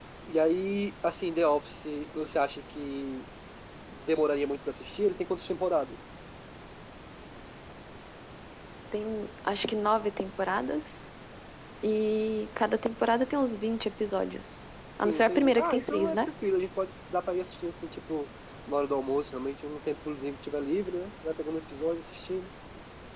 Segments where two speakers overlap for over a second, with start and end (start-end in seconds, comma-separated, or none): 15.0-16.3